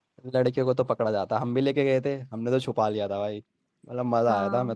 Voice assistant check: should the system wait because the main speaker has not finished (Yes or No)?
Yes